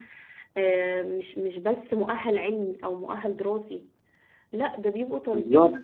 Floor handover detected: No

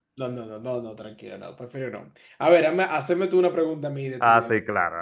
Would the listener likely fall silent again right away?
No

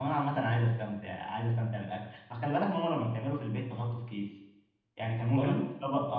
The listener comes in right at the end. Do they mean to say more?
No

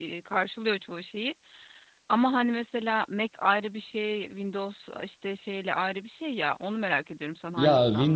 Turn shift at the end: Yes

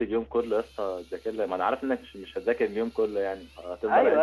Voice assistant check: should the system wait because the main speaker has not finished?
No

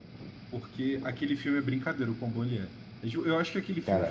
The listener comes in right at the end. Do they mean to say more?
No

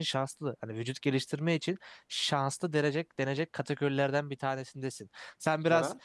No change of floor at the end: Yes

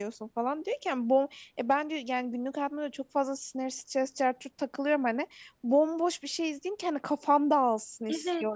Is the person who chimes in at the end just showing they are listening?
Yes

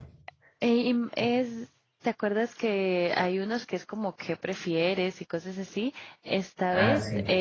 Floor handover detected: No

